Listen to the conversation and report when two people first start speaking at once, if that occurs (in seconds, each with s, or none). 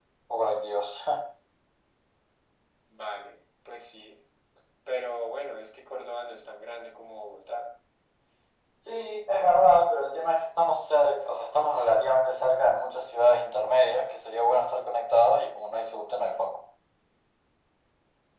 none